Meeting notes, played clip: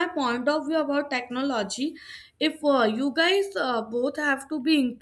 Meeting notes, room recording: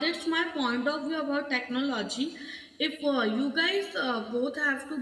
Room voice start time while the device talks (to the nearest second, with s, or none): none